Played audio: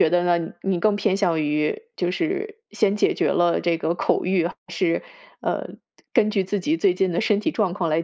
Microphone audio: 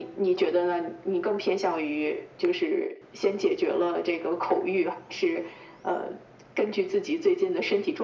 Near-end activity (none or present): none